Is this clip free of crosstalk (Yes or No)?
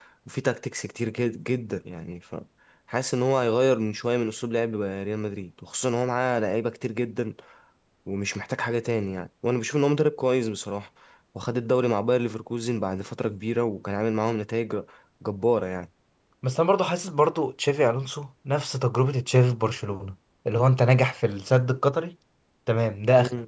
Yes